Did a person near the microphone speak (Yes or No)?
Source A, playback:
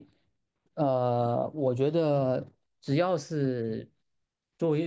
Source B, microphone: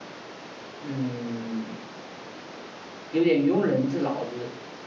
Yes